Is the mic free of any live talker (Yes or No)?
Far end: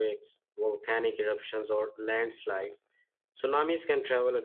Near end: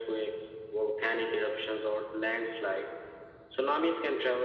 Yes